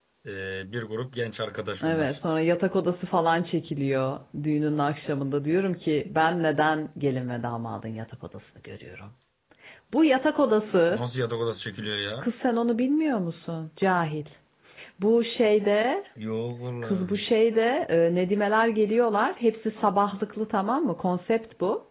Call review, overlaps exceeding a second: none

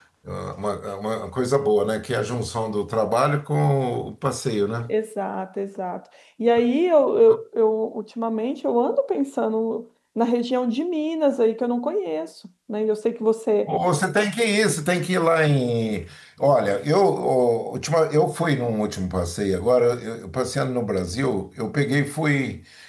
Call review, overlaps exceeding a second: none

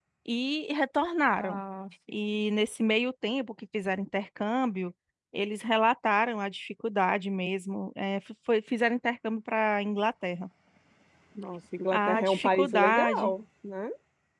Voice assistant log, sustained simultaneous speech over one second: present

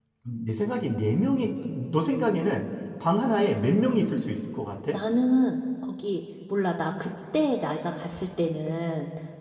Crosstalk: none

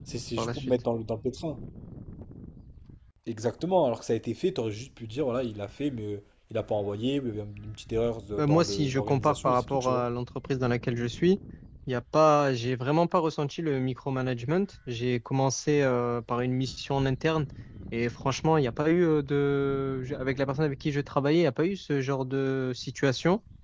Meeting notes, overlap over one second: present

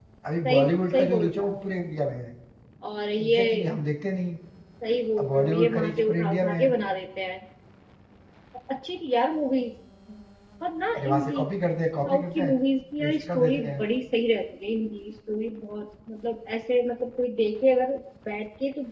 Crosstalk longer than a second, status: present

